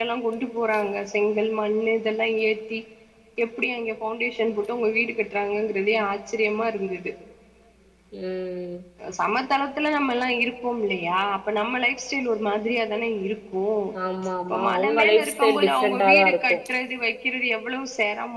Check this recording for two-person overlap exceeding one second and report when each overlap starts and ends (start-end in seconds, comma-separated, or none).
14.5-16.6